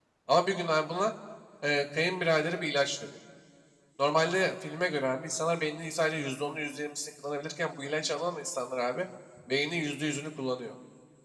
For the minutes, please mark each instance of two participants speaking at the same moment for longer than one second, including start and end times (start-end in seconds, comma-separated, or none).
none